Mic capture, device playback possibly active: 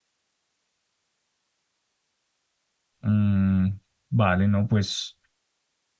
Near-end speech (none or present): present